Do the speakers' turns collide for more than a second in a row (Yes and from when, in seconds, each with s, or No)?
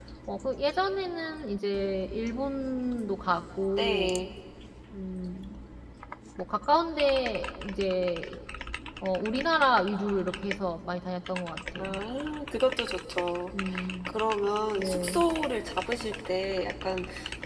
No